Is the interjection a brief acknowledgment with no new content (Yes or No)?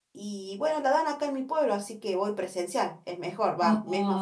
No